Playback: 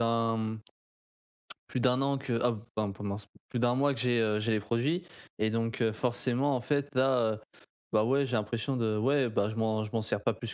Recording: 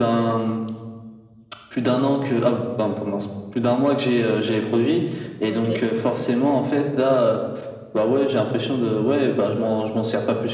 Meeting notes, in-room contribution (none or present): present